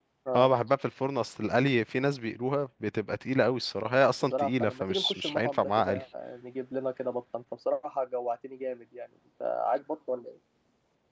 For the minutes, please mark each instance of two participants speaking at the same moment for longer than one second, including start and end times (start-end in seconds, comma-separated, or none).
4.2-6.0